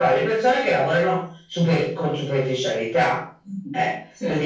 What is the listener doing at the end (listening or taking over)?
listening